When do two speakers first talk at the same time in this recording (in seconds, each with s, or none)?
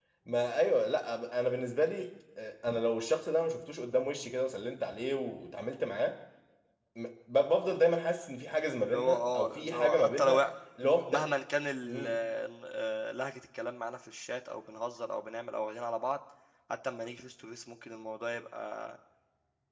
8.8 s